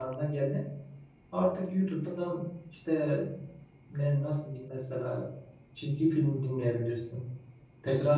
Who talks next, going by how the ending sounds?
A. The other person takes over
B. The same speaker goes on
B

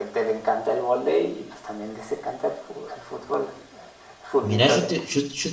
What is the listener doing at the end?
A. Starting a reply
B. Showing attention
A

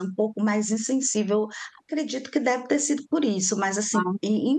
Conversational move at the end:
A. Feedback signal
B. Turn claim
A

